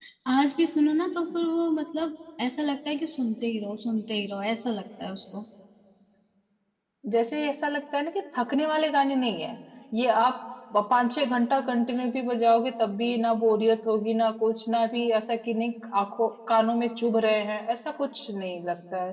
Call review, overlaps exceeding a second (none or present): none